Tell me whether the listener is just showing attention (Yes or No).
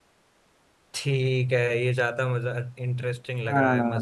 No